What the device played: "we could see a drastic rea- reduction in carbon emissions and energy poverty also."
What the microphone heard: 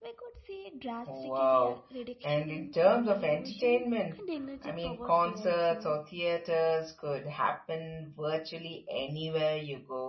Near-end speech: present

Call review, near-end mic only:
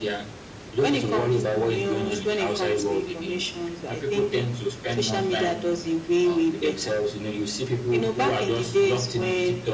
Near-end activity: none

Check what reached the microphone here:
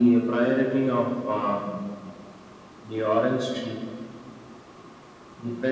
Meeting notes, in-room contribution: none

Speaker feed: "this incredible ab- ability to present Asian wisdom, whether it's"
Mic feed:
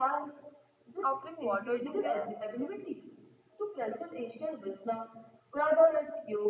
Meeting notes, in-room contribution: present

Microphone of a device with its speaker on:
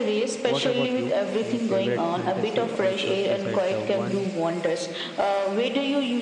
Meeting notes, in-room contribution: present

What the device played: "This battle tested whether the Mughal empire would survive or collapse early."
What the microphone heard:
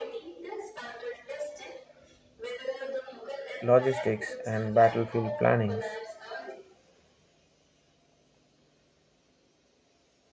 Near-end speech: present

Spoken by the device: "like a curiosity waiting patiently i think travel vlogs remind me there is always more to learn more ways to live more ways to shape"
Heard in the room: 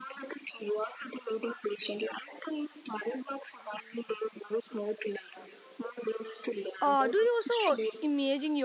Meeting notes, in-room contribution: present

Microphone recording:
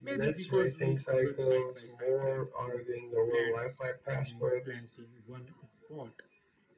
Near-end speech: none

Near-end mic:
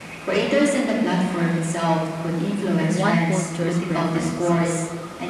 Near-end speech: present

